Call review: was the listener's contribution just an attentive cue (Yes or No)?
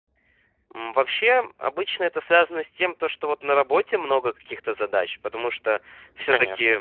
Yes